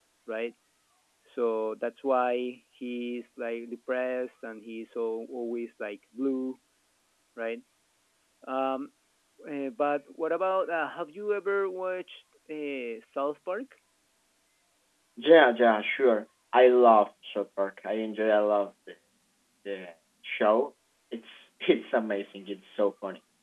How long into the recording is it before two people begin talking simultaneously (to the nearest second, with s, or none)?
none